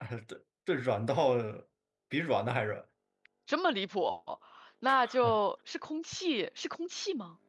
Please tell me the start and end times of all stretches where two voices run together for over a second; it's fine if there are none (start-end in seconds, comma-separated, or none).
none